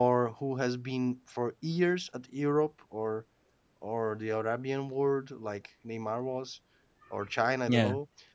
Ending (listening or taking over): listening